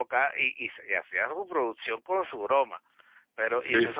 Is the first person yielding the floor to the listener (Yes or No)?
No